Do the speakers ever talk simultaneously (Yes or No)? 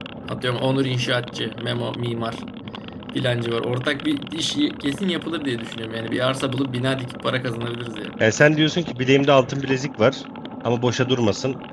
No